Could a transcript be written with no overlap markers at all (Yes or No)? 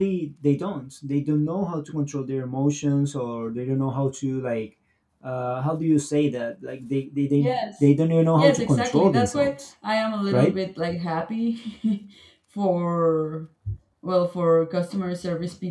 No